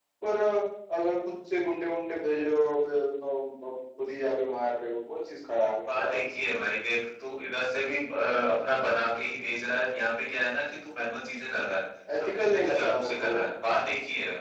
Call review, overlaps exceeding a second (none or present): present